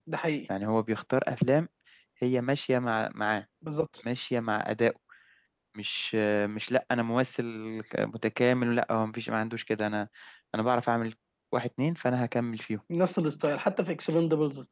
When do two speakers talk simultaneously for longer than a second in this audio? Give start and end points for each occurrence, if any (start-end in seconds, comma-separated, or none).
none